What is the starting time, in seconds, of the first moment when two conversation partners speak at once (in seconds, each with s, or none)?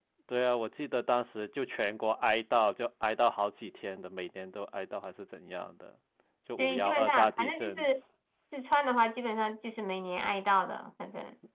6.6 s